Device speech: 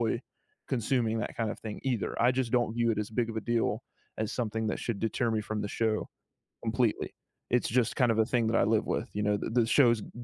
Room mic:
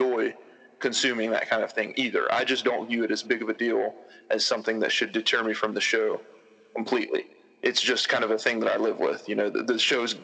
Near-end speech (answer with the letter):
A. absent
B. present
A